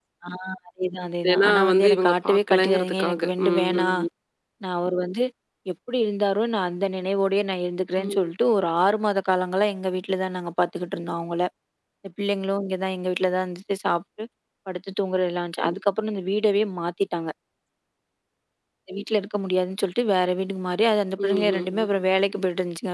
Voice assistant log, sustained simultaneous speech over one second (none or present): present